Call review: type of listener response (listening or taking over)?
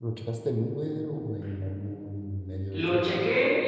taking over